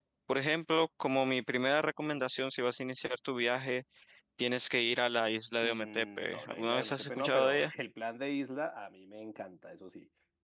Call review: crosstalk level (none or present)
present